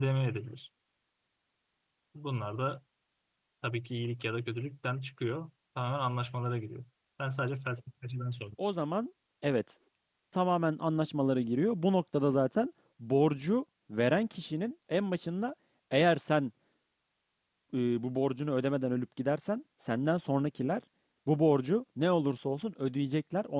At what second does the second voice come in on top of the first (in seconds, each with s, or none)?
none